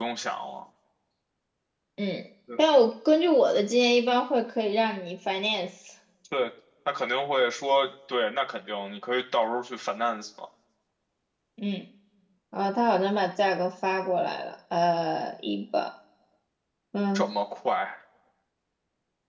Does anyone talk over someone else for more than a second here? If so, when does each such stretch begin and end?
none

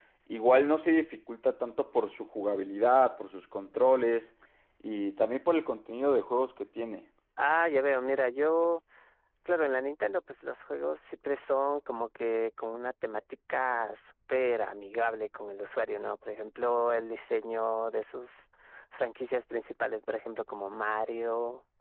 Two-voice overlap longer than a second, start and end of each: none

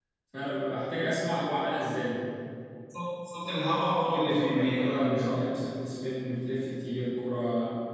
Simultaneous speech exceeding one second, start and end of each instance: 4.0-5.4

